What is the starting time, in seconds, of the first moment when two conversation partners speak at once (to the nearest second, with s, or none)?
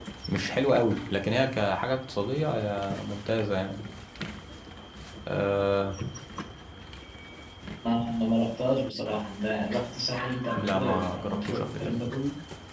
11 s